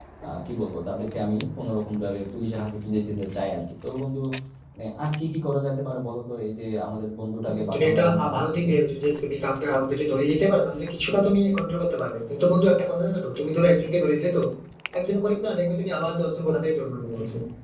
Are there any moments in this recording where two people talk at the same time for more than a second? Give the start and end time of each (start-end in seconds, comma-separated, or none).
7.4-8.7